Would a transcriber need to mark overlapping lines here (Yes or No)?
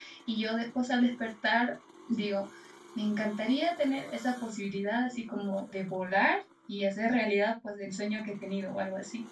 No